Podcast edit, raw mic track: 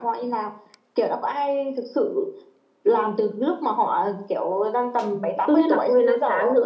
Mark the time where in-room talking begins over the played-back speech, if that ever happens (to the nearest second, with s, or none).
5 s